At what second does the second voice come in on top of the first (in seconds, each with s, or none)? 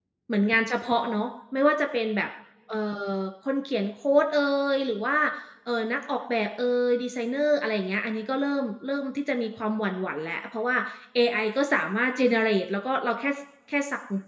none